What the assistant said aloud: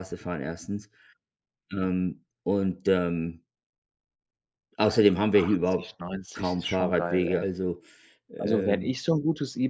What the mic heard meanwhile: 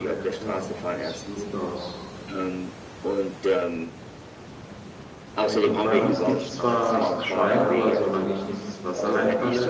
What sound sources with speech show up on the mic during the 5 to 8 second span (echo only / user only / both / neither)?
both